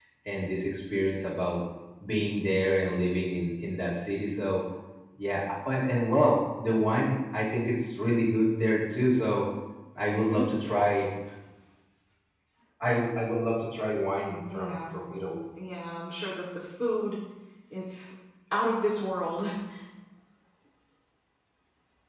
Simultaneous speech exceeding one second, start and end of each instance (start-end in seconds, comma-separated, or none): none